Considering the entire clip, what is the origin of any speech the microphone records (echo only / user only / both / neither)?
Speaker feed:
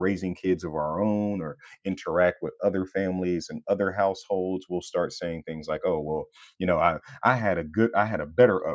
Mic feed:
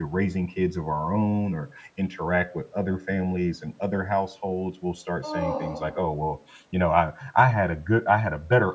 both